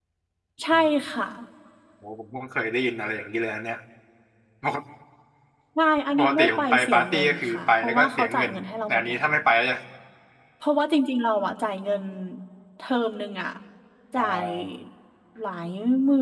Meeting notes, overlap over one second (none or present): present